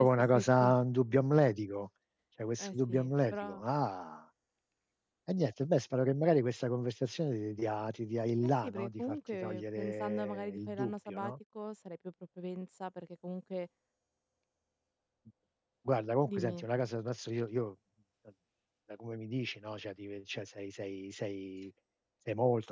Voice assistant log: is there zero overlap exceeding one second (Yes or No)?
No